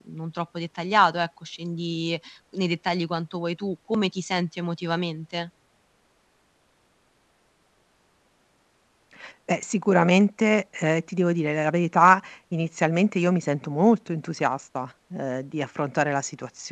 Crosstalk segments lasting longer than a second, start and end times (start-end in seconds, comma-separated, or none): none